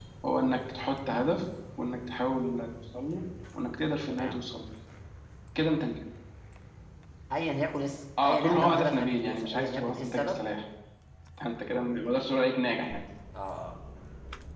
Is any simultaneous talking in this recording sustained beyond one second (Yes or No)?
Yes